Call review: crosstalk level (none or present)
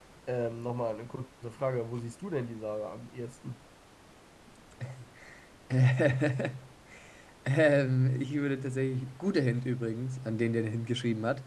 none